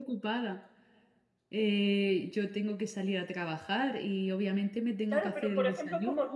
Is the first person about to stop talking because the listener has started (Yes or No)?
Yes